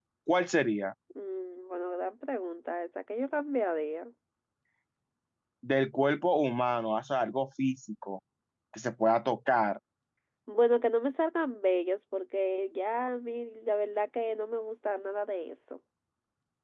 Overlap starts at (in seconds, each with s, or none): none